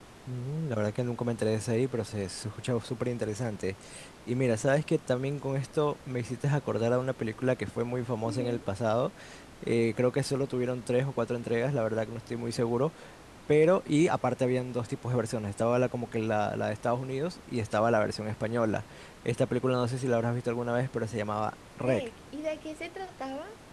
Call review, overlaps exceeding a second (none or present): none